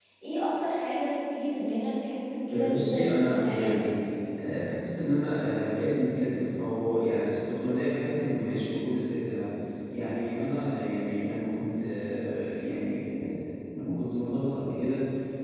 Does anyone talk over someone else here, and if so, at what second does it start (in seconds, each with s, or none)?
2.5 s